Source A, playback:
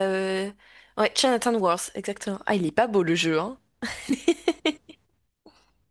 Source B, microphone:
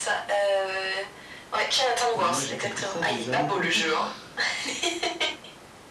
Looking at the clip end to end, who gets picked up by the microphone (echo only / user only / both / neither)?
both